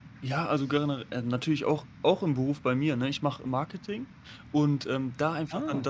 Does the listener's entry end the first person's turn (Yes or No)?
No